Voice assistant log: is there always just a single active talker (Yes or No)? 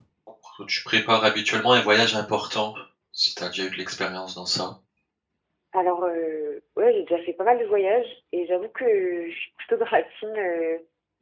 Yes